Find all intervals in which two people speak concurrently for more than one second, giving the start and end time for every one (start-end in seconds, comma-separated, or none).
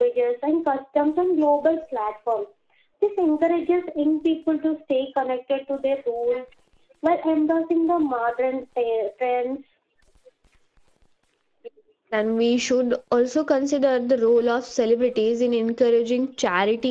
none